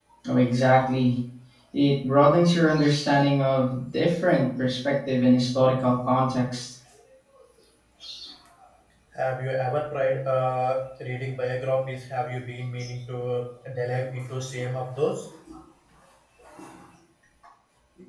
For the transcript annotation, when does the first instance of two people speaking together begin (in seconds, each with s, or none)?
none